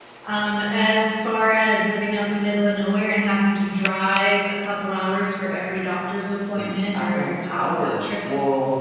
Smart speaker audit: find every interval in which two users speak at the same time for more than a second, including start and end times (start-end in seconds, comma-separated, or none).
6.5-8.1